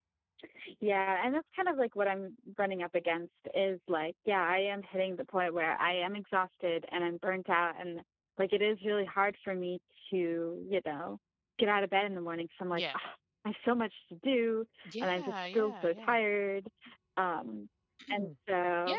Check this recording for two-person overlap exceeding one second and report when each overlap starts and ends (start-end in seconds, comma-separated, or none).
14.8-16.2